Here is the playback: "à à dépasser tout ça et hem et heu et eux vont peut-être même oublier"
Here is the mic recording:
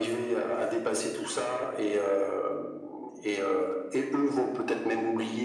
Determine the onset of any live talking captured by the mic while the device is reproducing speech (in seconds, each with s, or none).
none